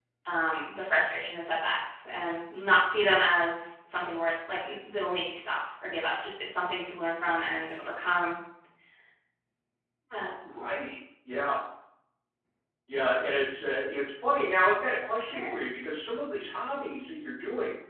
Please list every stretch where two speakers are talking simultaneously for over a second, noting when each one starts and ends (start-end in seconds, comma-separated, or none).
none